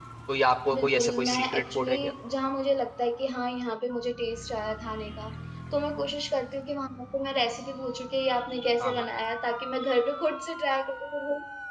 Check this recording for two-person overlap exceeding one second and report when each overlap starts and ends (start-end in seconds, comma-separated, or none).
0.8-1.9